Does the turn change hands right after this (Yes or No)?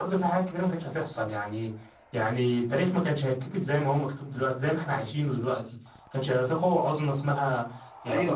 Yes